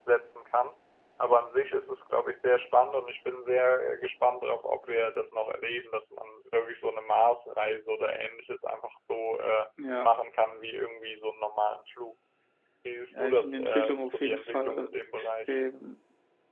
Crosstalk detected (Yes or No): Yes